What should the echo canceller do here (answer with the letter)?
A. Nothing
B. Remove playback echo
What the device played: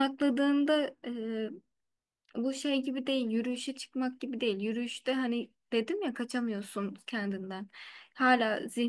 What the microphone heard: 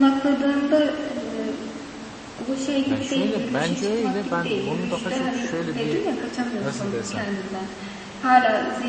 B